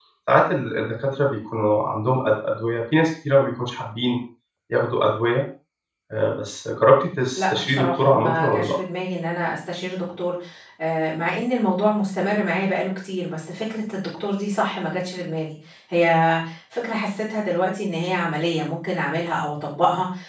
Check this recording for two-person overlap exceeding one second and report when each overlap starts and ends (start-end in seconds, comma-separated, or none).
7.4-8.7